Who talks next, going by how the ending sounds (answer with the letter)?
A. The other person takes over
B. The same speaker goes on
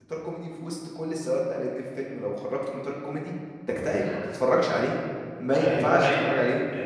A